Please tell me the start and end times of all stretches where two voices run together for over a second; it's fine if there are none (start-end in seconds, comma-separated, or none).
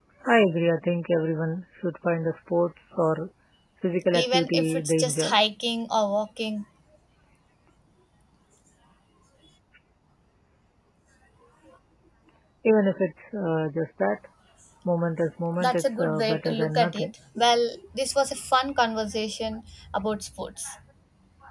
4.1-5.3, 15.6-17.1